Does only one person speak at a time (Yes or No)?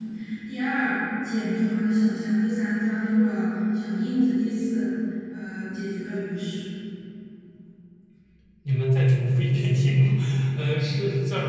Yes